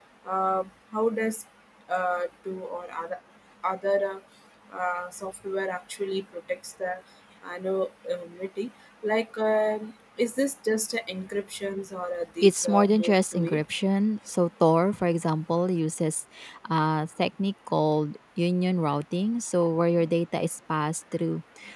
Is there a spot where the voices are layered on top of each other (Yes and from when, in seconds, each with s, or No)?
Yes, from 12.4 s